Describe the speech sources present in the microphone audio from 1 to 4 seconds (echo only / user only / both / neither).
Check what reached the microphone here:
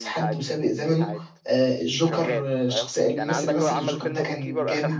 both